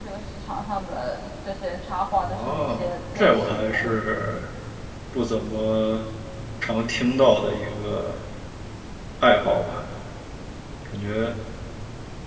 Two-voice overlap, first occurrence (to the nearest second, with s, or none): 2 s